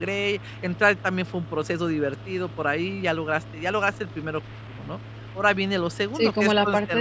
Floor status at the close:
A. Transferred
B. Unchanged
A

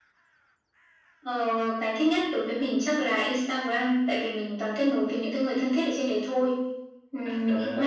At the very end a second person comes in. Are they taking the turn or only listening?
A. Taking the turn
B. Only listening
A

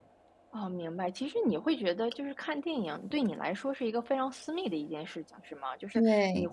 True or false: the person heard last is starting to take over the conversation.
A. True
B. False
B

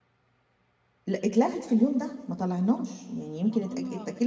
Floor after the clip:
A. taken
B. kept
B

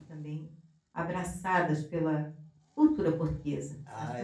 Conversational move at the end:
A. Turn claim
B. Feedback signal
A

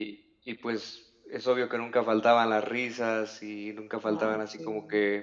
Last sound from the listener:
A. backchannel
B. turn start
A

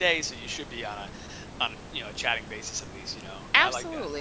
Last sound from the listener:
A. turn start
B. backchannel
A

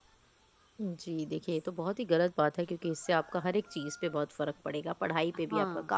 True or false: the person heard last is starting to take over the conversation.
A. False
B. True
A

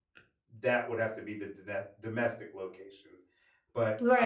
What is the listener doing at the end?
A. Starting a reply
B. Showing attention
A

